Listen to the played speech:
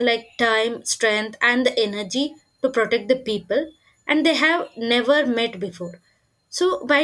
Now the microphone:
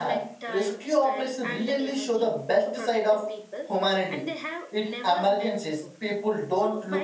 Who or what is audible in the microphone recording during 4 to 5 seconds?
both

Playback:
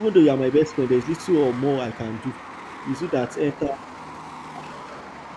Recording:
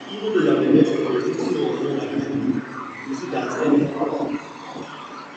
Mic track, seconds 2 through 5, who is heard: echo only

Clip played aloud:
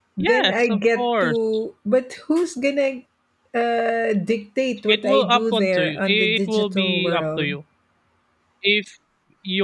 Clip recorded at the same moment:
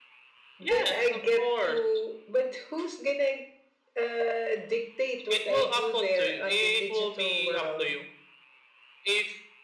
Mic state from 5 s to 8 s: echo only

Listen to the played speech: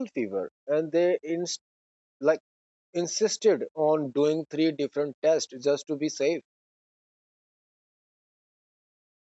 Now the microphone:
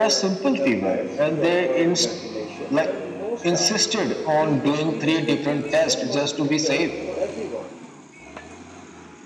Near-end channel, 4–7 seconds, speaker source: both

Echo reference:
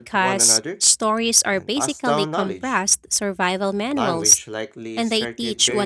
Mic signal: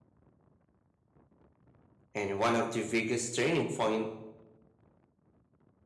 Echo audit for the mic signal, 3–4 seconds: user only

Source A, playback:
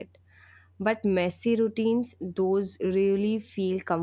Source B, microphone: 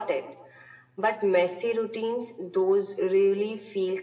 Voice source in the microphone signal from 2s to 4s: echo only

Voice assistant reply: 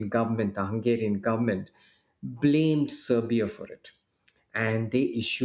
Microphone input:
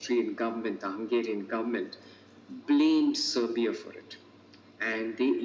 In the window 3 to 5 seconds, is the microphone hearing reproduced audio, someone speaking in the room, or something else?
echo only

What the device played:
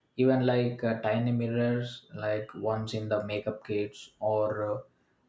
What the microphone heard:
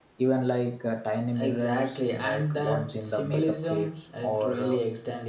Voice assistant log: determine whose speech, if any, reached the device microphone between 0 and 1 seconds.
echo only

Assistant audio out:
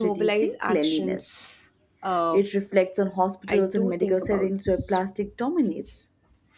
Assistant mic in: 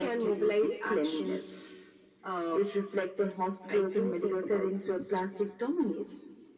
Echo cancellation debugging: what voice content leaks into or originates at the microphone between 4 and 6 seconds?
echo only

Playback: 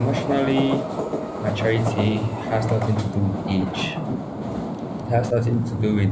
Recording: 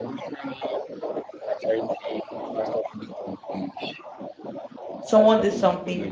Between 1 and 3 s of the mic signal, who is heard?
echo only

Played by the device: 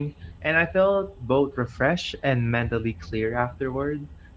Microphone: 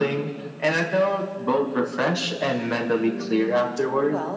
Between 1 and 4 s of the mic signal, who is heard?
both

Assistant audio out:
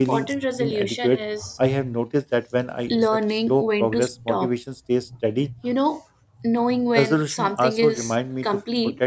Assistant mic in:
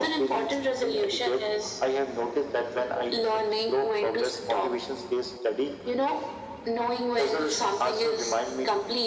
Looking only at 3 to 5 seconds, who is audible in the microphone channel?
echo only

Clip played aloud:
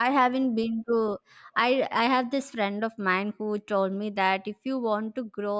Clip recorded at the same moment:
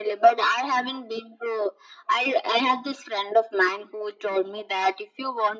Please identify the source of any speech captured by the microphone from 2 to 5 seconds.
echo only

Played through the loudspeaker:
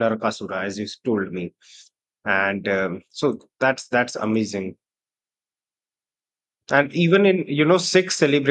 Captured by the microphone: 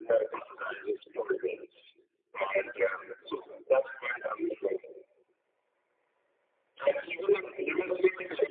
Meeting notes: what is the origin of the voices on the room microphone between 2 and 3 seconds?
echo only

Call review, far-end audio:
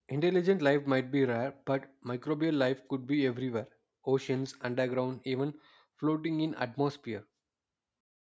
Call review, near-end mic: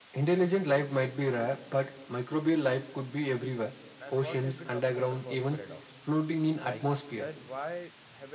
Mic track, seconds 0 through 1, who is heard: echo only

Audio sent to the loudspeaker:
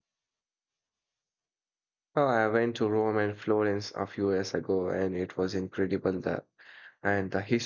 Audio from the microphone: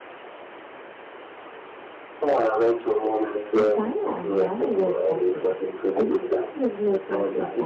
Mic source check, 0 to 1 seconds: neither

